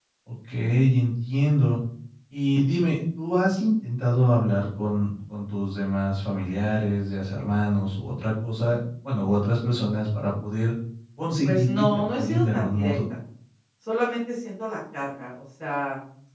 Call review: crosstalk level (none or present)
present